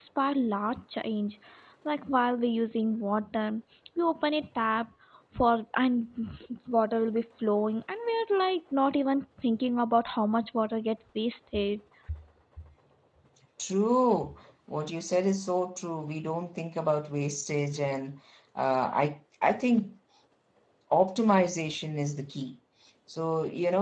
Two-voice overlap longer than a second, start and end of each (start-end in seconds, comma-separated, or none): none